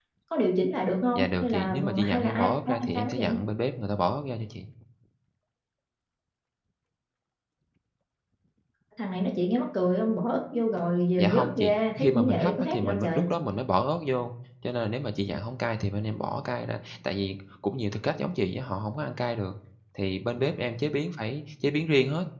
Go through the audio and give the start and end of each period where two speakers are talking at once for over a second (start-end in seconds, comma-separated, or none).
1.1-3.4, 11.2-13.2